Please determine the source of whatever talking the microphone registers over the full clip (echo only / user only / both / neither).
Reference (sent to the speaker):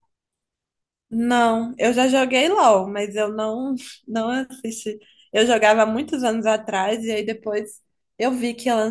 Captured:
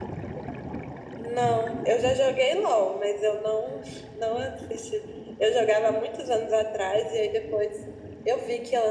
echo only